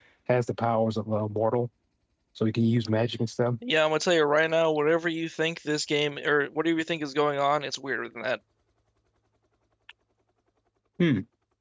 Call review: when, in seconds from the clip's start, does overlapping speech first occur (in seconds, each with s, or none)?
none